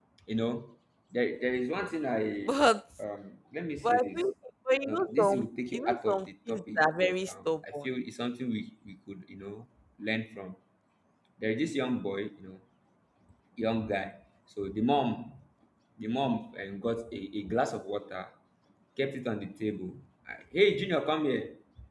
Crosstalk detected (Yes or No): Yes